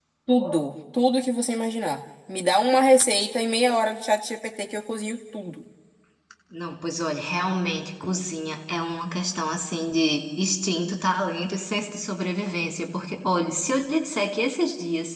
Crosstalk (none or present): none